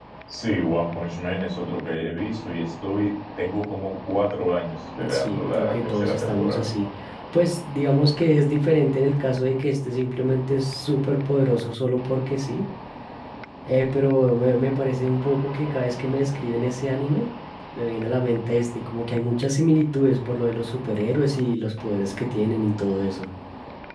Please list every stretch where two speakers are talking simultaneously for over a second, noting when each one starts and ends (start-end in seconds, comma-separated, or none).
5.1-6.6